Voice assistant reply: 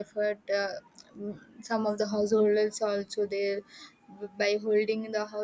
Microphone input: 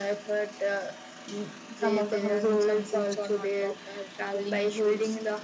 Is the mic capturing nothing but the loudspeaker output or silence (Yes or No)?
No